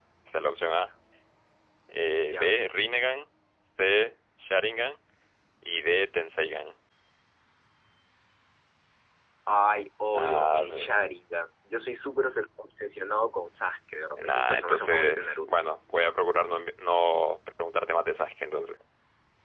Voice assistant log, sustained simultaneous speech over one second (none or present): present